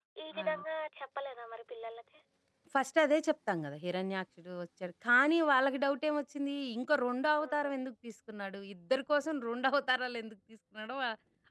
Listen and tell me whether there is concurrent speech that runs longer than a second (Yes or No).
No